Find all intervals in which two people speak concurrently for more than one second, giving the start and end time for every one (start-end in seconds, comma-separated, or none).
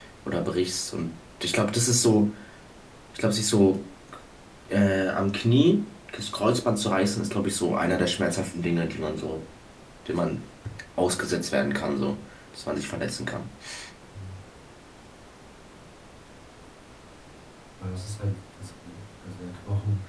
none